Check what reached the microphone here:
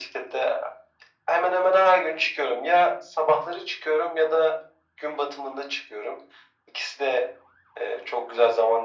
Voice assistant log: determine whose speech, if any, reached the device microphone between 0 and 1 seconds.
echo only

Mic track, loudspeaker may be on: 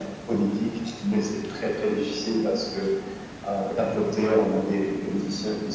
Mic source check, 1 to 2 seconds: echo only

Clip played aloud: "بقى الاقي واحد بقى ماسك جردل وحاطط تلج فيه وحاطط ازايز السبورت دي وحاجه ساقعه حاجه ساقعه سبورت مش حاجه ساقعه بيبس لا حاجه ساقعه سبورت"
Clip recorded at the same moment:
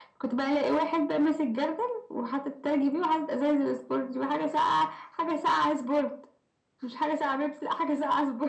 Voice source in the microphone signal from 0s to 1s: echo only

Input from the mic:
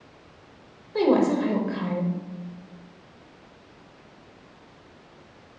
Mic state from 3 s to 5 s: neither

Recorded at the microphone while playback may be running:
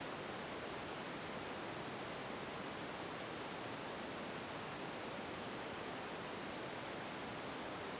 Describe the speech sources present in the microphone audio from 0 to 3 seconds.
neither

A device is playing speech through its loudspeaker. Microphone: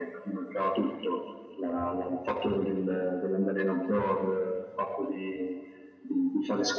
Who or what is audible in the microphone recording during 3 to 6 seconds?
echo only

